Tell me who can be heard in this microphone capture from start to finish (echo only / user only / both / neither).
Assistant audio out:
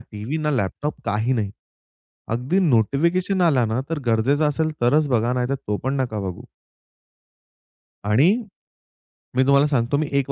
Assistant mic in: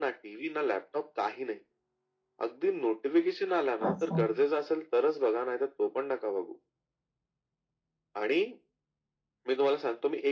both